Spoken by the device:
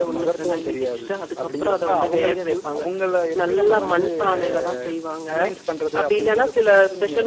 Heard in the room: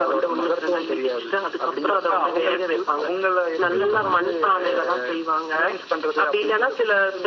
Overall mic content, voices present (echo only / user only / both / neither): both